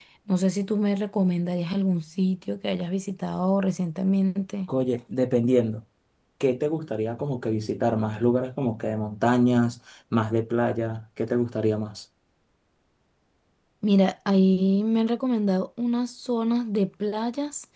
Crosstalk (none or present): none